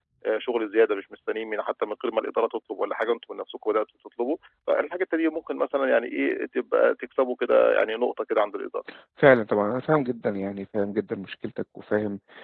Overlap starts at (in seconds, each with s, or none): none